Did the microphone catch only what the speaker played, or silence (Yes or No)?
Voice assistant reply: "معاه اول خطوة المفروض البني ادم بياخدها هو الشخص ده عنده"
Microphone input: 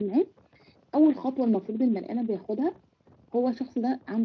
Yes